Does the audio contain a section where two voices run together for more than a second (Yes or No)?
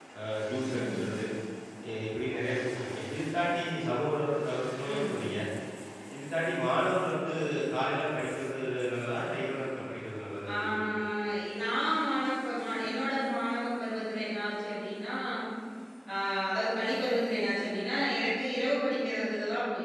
No